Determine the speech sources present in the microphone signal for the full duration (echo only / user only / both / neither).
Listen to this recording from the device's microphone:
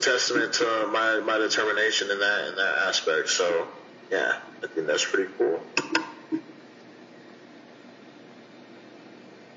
echo only